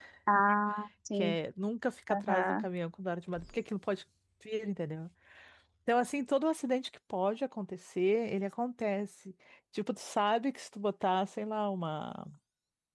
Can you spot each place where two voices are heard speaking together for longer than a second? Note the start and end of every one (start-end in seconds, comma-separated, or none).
none